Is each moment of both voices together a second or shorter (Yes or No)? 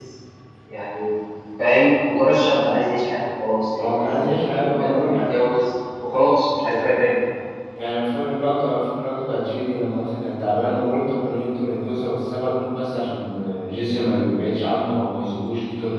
No